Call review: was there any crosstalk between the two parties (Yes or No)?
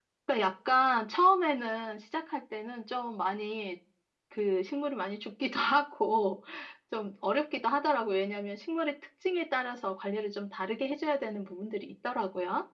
No